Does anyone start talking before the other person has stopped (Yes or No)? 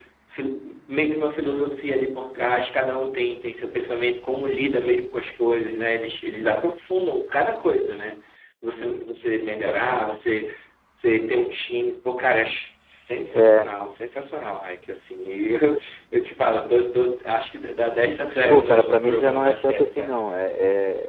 Yes